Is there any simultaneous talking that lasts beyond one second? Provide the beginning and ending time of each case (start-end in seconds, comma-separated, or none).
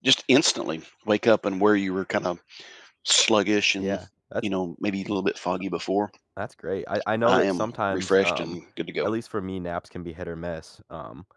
7.2-8.6